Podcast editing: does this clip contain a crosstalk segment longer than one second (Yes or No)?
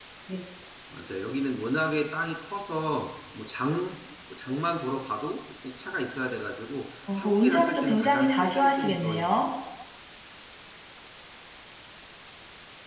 Yes